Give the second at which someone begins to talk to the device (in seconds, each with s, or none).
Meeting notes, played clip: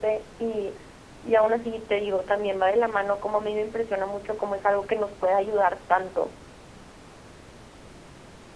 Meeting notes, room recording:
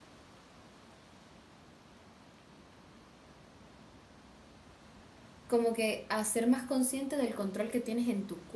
5.5 s